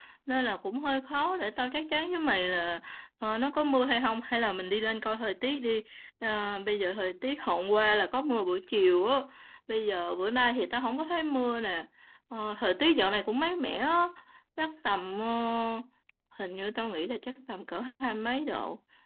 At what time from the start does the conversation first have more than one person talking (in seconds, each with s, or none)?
none